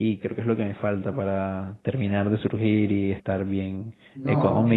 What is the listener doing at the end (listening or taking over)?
listening